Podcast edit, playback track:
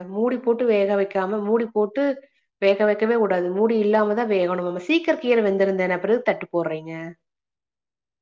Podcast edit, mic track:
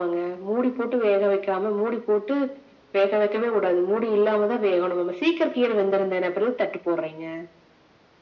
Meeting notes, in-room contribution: none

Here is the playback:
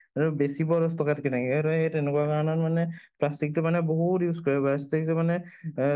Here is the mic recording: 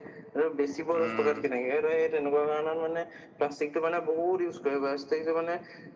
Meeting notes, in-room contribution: present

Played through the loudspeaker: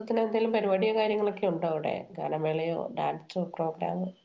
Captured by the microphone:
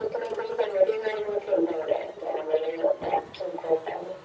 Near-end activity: none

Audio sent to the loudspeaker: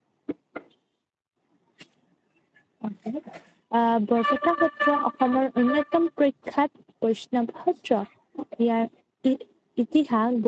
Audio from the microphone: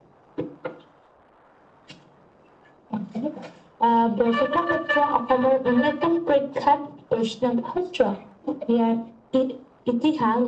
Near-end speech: none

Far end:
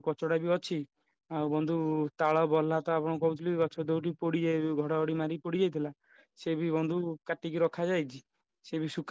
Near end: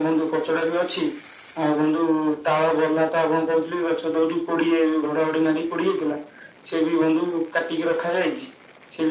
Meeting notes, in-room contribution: none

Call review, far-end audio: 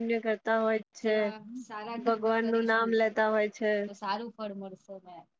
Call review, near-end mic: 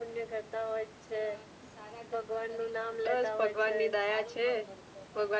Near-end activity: present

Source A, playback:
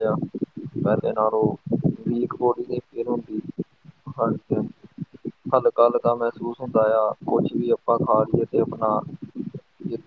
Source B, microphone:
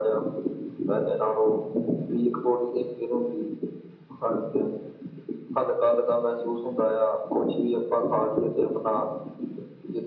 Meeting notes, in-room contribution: none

